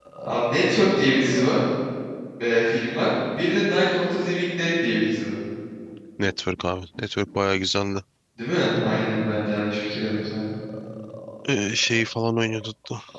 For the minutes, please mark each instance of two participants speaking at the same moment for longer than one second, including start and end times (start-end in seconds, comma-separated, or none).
none